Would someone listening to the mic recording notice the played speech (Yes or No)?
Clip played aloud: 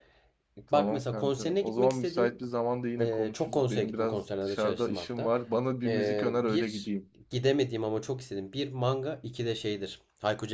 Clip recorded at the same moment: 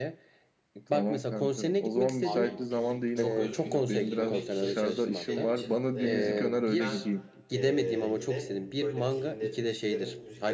Yes